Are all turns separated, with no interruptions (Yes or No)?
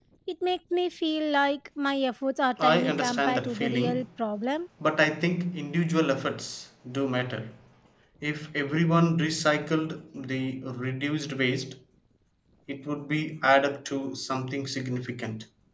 No